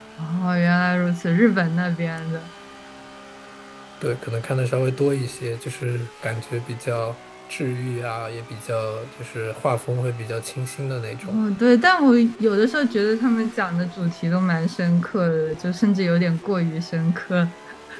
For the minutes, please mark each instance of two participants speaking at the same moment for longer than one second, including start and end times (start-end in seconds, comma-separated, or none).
none